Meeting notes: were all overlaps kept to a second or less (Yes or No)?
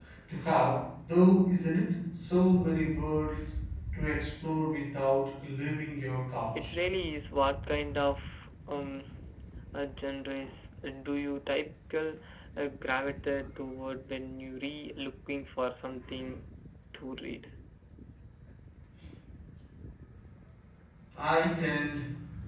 Yes